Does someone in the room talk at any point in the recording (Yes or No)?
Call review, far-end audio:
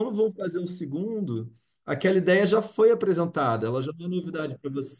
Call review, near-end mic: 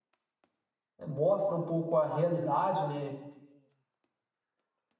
Yes